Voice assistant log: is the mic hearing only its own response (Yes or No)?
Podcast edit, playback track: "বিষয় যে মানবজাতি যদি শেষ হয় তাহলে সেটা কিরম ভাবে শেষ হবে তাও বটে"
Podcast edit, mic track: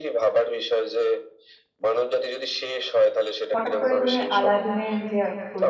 No